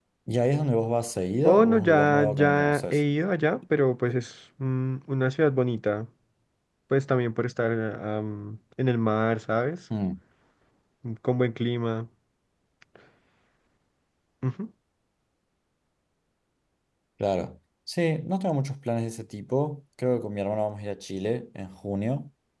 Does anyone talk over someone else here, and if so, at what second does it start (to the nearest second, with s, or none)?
1 s